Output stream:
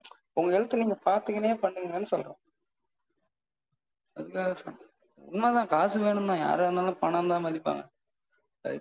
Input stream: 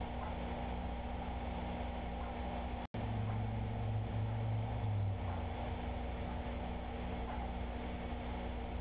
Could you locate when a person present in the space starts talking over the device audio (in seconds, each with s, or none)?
none